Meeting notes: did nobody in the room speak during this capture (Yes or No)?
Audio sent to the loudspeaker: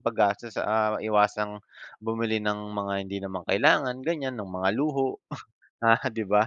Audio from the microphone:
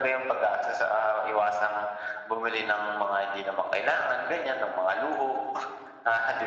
Yes